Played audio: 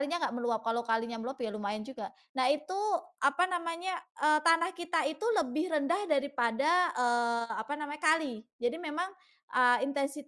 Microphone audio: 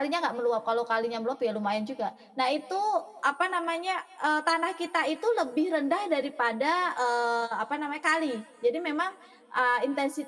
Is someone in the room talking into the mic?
No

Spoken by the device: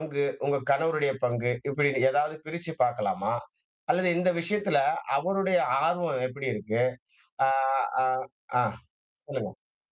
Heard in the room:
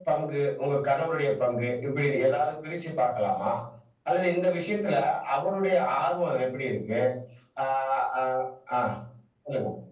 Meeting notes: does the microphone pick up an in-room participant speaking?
No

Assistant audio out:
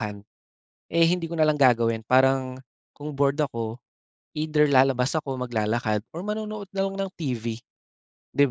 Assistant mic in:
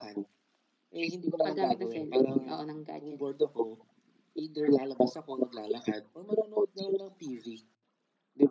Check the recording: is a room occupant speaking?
Yes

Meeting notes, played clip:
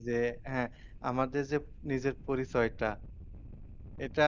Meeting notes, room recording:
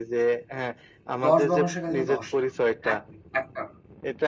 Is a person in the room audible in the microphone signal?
Yes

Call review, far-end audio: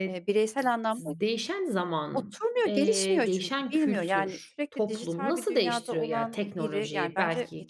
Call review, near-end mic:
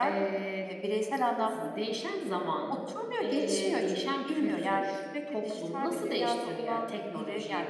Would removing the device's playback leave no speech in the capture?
Yes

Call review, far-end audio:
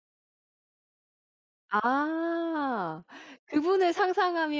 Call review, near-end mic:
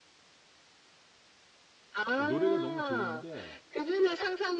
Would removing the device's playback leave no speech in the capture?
No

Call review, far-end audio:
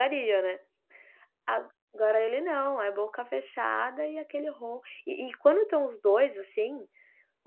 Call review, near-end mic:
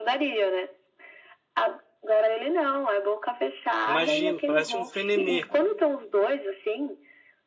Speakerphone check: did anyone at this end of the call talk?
Yes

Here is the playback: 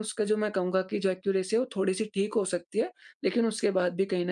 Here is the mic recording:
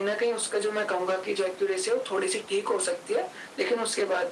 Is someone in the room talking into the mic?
No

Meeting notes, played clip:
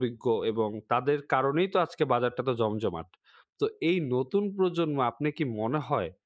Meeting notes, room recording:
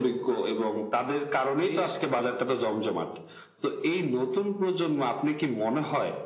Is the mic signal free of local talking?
No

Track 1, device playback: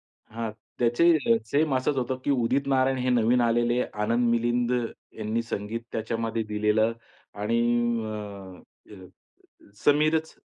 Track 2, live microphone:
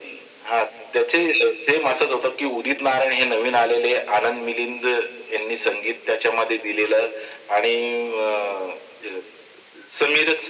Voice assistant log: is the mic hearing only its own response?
Yes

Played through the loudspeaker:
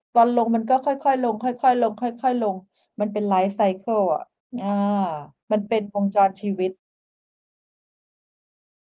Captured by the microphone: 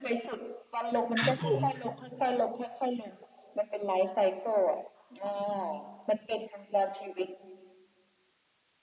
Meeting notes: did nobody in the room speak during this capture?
No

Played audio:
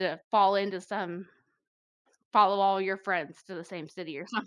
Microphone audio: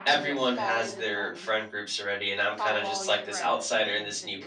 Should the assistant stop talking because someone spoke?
Yes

